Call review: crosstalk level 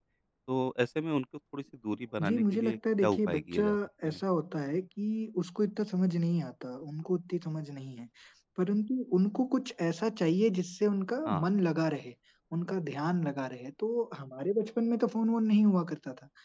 present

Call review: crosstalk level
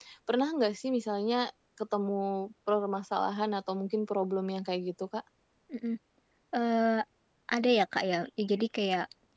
none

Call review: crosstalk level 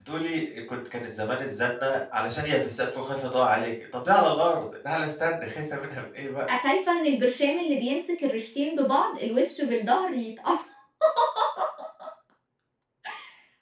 none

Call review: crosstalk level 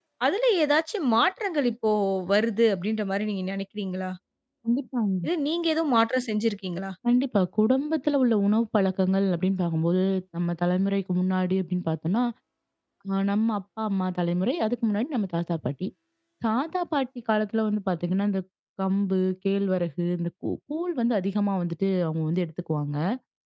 none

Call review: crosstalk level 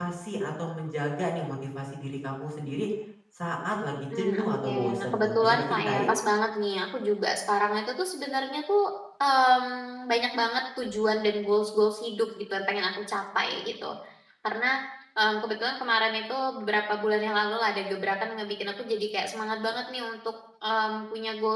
present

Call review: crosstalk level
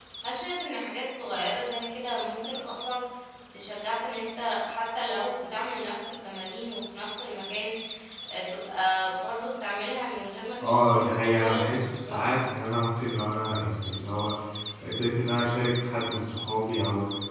present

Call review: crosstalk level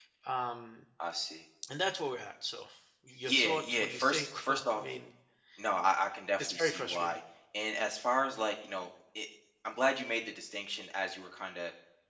present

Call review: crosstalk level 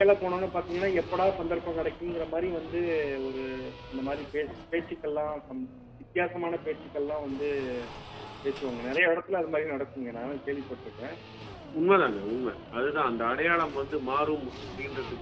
none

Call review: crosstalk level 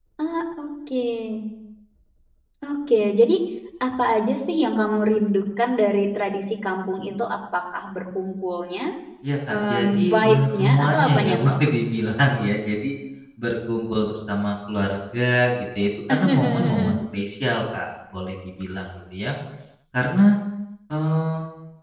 present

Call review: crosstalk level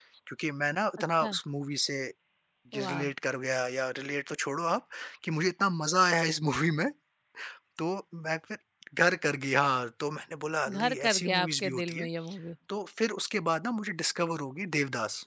present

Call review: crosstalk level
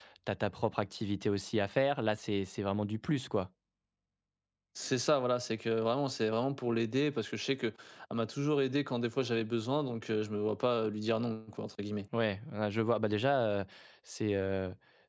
none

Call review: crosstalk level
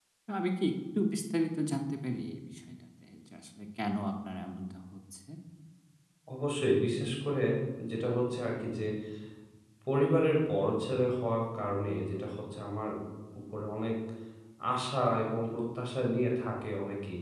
none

